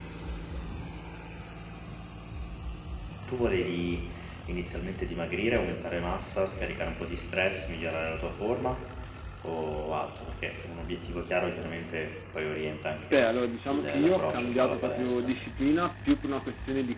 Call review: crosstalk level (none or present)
present